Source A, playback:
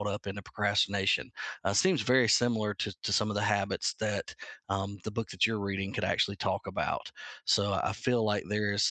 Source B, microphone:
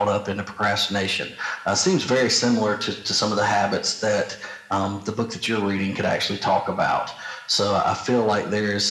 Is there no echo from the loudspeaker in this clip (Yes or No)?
No